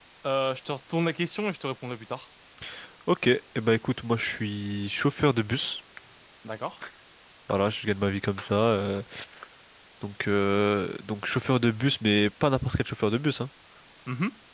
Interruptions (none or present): none